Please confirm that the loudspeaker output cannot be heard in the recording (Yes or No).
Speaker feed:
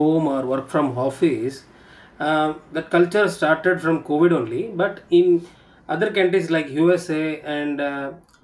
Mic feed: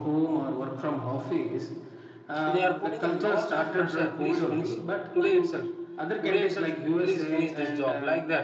No